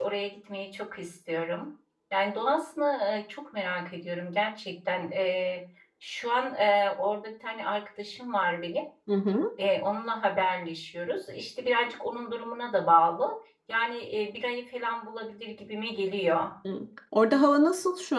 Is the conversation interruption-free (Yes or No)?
Yes